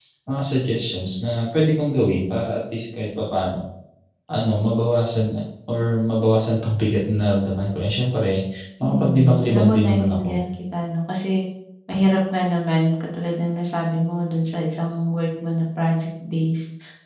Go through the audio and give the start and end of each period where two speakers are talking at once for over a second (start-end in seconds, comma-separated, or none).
8.8-10.4